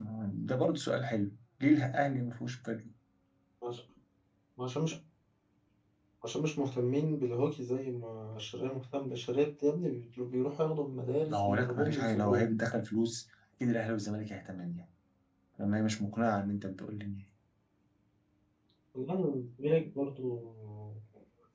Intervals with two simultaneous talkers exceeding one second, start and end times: 11.2-12.5

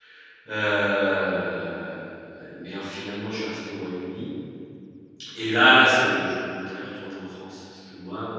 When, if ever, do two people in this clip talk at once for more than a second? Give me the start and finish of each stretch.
none

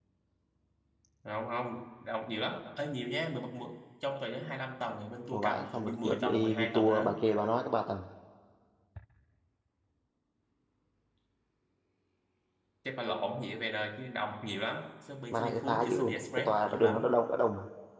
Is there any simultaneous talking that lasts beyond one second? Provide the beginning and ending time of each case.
5.3-7.1, 15.3-17.0

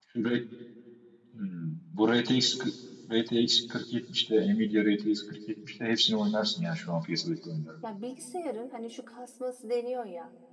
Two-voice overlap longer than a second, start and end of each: none

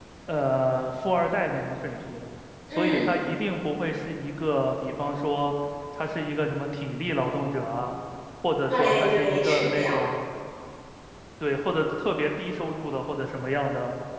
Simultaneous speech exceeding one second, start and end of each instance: 8.7-10.0

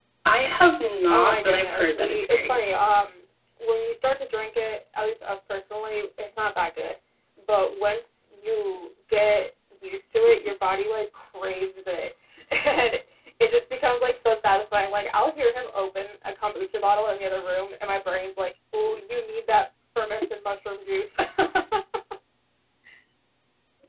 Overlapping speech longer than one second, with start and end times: 1.1-2.6

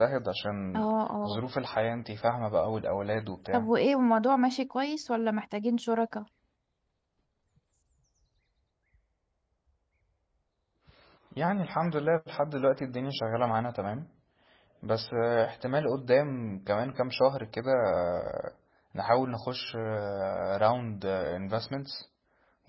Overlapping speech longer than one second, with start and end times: none

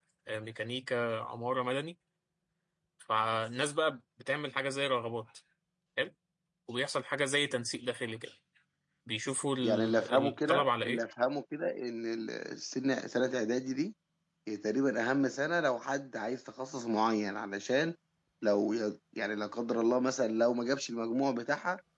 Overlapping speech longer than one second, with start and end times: 9.6-11.0

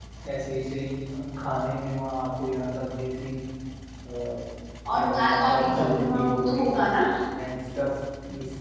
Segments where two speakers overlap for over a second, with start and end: 4.9-6.7

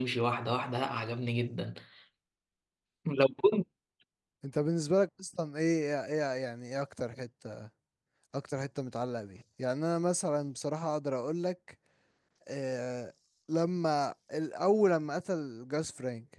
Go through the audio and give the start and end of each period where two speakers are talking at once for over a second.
none

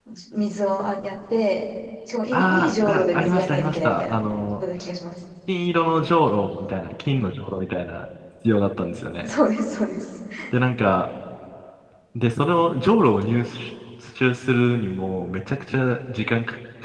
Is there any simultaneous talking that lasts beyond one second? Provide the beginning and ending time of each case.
2.3-4.2

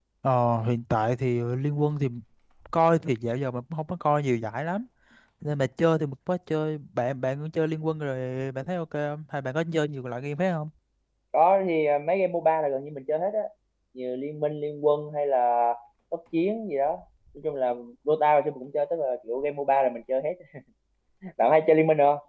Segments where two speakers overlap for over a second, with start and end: none

